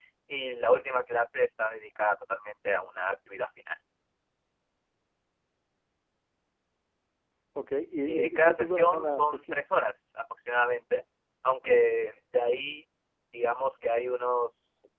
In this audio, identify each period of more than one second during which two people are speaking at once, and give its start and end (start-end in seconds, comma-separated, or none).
8.0-9.6